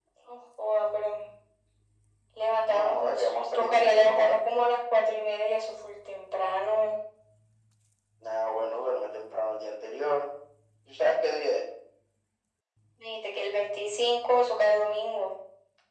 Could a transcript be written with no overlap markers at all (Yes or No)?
No